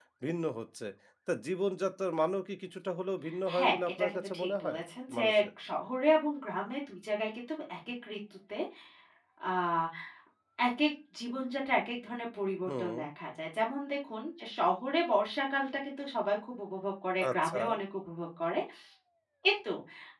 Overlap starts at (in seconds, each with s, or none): 3.6 s